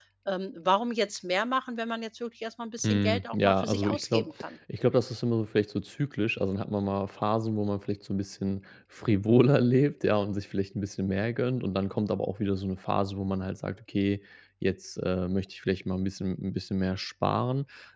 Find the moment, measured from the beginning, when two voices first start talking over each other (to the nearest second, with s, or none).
3 s